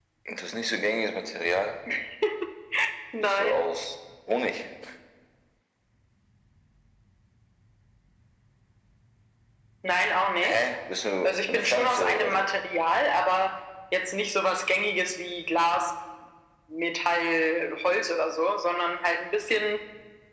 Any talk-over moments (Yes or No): Yes